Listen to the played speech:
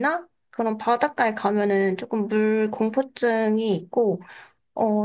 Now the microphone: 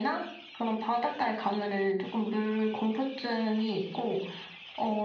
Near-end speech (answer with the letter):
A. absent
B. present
A